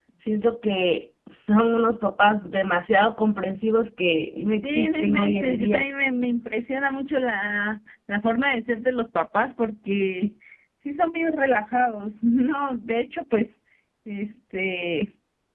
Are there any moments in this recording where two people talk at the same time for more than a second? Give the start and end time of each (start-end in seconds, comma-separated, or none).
4.6-5.9